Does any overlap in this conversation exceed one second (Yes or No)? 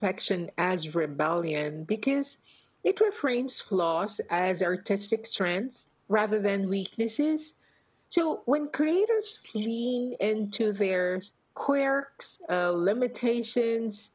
No